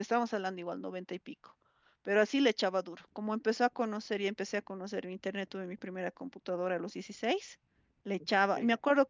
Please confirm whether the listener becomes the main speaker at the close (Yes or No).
No